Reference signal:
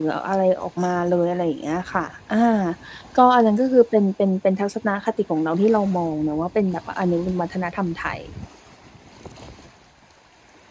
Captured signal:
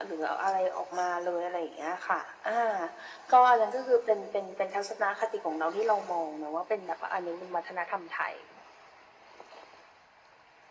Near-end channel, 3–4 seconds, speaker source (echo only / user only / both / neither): echo only